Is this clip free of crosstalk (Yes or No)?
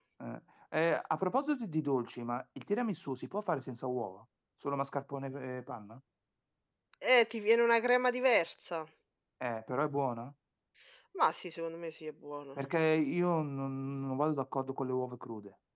Yes